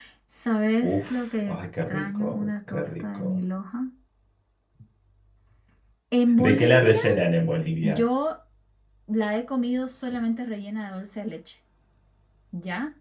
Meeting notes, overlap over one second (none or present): present